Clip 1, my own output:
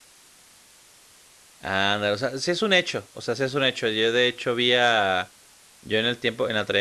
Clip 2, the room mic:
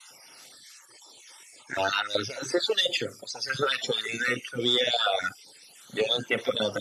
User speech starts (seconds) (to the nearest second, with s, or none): none